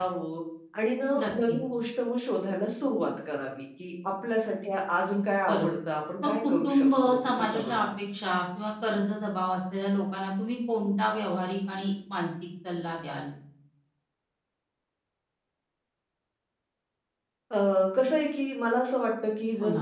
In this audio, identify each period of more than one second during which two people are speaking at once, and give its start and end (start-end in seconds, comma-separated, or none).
6.2-7.8